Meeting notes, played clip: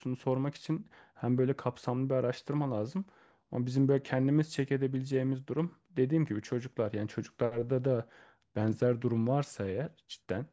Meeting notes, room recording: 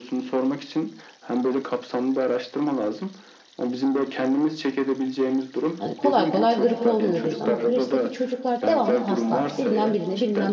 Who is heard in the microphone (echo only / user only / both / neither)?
both